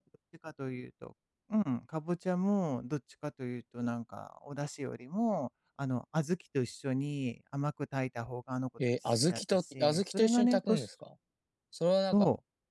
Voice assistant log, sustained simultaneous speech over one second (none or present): present